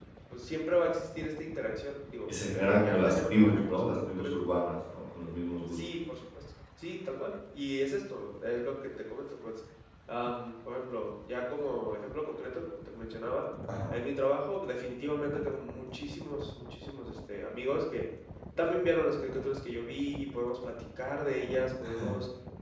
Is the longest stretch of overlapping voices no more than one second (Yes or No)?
No